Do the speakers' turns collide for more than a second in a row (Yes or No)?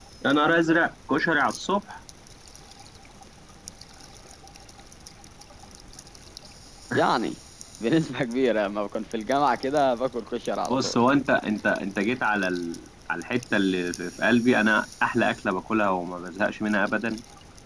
No